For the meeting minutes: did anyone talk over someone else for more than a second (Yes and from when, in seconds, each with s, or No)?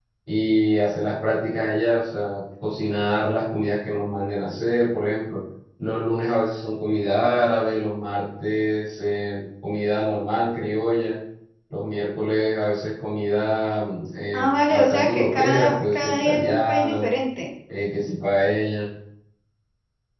Yes, from 14.3 s